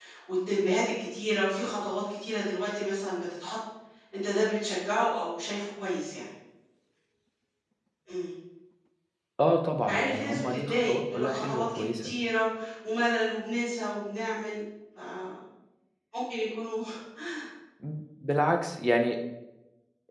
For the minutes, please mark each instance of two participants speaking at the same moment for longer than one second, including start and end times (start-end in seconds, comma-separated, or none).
9.9-12.1